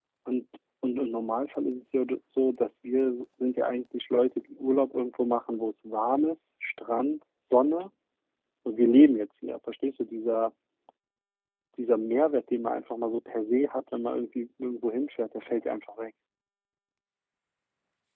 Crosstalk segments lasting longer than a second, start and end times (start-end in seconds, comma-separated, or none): none